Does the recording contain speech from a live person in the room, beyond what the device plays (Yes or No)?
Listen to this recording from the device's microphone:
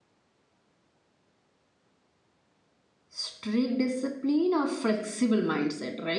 Yes